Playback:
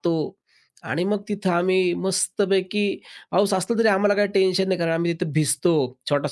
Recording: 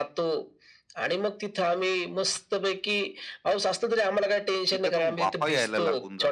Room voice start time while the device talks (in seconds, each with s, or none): 4.7 s